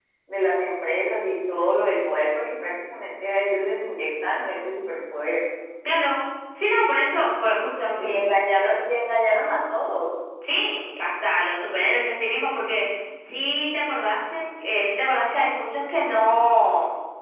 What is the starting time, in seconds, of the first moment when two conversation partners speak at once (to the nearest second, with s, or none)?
none